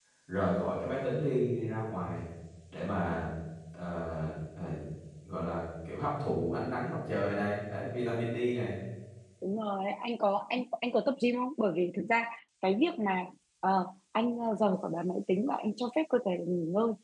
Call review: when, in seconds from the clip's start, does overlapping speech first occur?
none

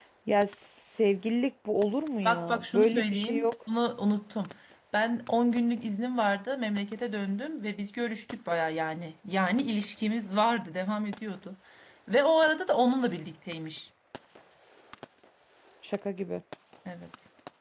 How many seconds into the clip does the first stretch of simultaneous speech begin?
2.2 s

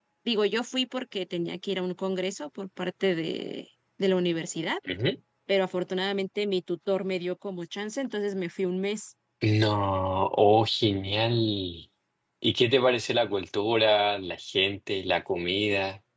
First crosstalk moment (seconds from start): none

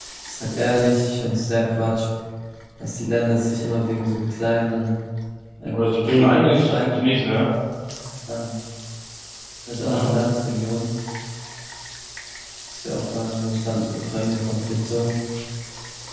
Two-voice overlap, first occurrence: 5.7 s

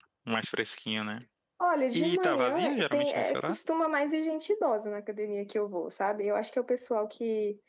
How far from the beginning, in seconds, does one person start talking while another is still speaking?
1.9 s

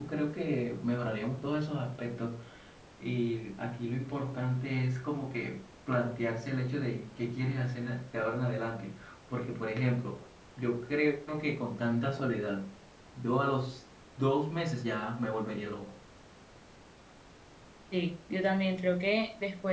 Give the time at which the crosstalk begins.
none

